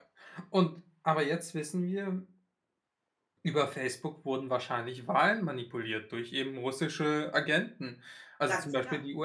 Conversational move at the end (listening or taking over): listening